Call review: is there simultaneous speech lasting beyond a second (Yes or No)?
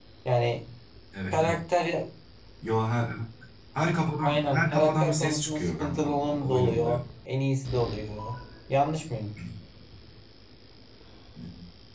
Yes